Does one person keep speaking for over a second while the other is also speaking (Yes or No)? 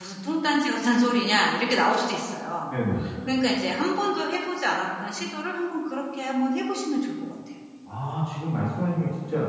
No